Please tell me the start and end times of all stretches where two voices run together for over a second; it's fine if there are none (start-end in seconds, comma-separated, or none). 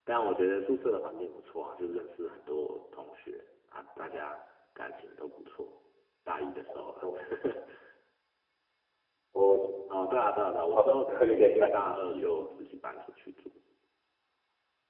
10.7-12.3